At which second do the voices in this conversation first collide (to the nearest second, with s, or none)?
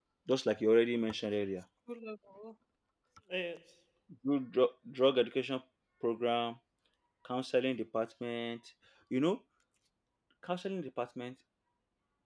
none